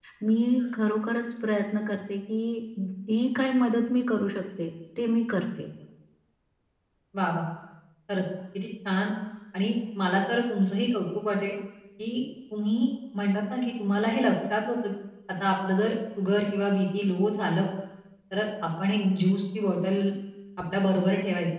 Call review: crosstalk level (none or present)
none